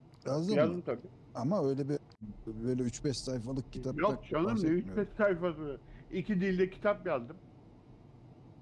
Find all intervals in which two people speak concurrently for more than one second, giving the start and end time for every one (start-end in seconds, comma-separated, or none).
3.8-5.1